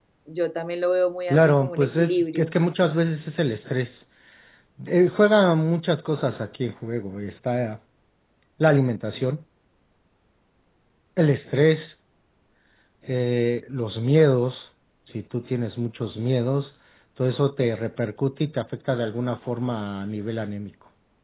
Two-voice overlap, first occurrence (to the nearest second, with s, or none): 1 s